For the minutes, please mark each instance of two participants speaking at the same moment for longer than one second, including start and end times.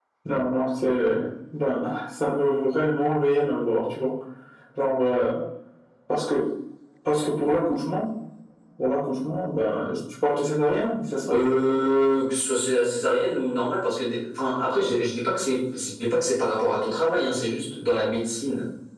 none

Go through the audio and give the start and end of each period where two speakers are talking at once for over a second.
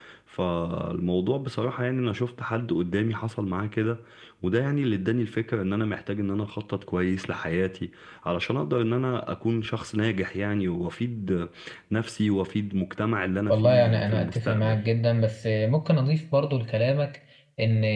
13.5-14.8

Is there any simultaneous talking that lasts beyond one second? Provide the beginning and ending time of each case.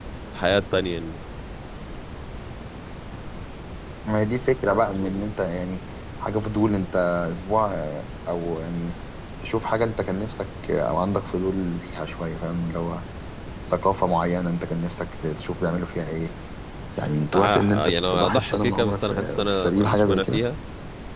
17.3-20.4

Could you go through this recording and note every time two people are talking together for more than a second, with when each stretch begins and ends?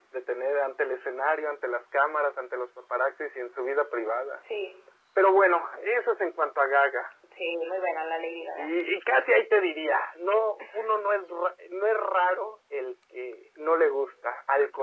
none

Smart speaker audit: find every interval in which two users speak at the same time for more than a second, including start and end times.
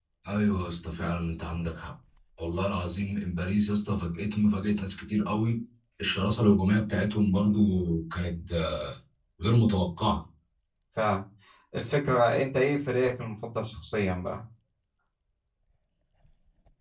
none

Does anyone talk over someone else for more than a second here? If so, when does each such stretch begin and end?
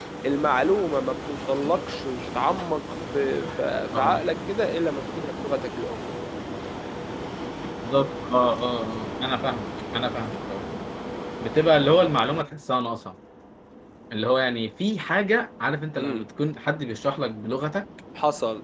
none

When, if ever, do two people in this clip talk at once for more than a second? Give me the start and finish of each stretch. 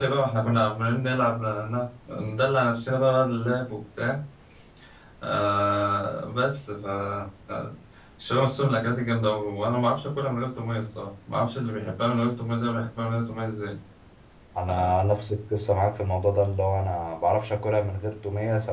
none

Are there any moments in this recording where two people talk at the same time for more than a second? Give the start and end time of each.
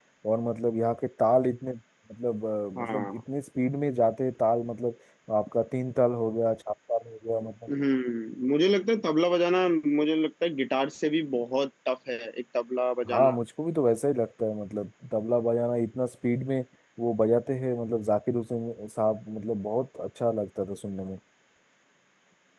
none

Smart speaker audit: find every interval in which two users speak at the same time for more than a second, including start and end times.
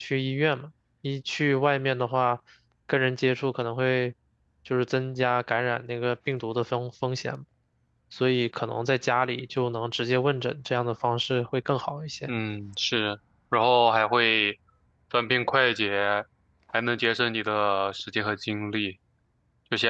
none

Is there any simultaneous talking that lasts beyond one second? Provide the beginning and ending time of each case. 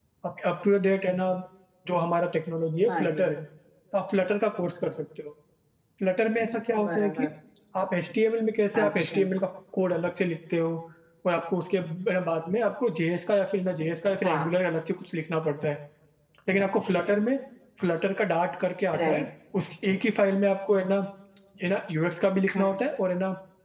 none

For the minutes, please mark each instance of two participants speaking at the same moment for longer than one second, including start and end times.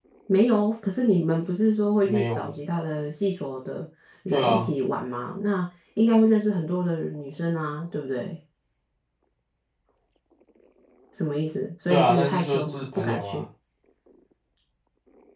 11.9-13.4

